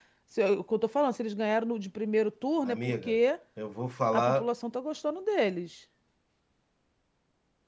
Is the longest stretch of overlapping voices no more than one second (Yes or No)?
Yes